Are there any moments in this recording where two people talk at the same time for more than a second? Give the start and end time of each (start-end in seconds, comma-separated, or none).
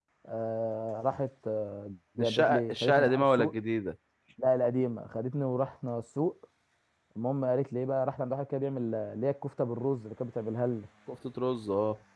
2.2-3.5